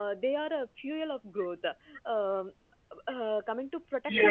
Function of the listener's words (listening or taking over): taking over